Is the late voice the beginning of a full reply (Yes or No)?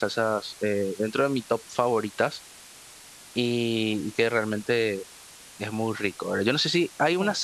No